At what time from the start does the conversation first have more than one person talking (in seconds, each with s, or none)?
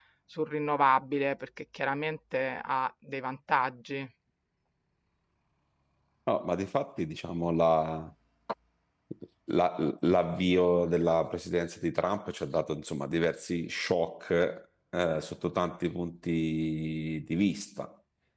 none